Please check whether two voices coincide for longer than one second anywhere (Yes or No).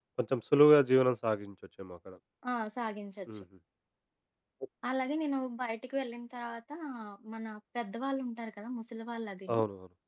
No